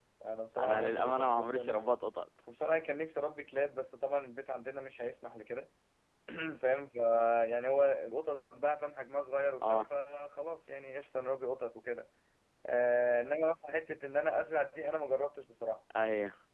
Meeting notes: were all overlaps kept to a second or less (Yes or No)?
No